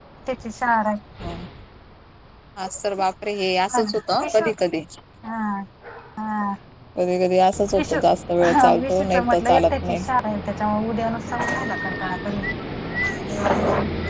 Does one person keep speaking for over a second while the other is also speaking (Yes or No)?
Yes